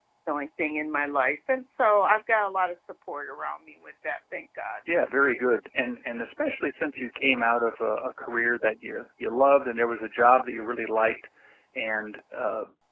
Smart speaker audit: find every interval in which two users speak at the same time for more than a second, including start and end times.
none

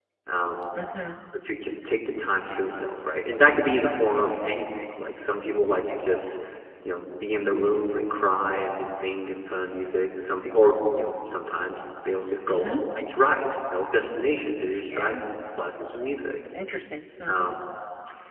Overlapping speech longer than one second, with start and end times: none

